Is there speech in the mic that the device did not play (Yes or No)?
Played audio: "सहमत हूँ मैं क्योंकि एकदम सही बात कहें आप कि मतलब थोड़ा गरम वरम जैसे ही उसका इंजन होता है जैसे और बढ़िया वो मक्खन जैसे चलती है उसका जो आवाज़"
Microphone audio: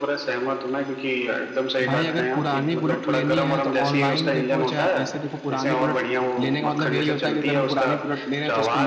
Yes